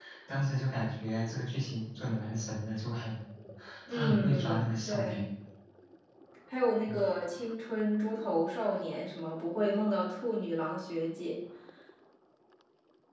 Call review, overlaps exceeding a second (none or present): present